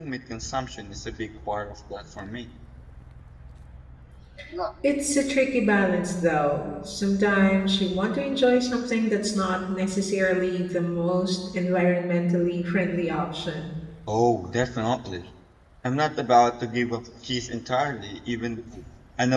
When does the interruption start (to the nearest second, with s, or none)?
none